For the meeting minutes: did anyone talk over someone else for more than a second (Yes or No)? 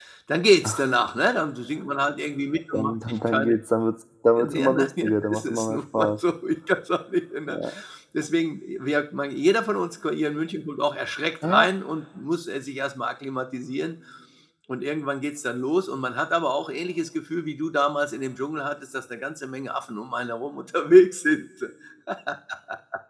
Yes